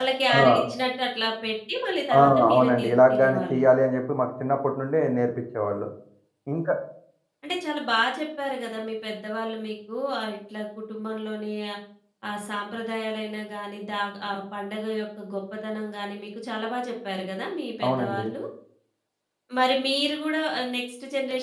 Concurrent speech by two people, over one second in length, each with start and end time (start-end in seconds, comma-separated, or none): 2.2-3.6